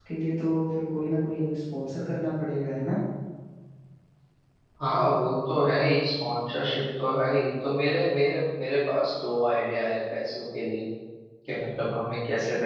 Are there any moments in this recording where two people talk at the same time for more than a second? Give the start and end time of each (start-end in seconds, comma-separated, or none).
none